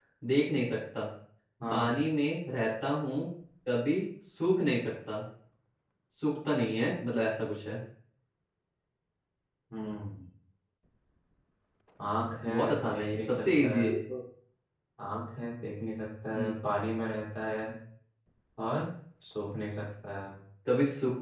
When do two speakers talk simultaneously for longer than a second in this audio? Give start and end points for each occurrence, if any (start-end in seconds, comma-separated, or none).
12.4-13.9